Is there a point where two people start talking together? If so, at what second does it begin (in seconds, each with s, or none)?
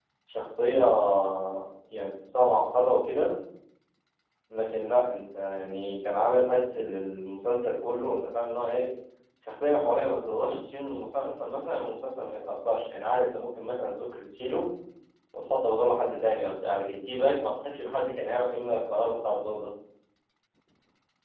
none